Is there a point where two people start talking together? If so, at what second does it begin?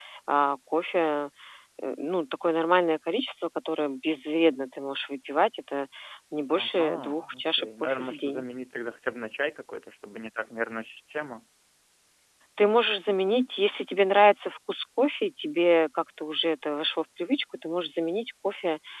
6.5 s

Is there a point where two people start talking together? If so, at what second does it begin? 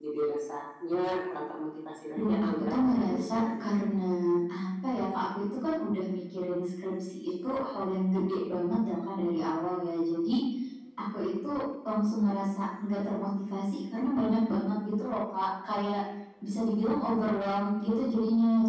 2.1 s

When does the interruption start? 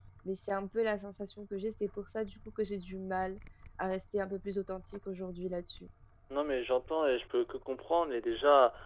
none

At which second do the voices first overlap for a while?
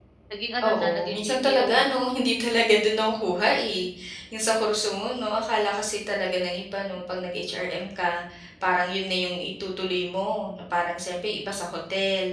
0.6 s

